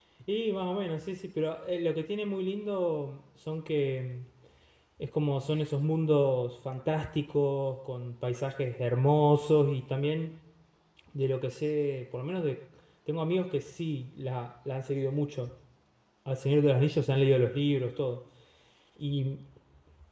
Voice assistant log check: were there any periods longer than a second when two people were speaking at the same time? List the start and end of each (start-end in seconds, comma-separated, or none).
none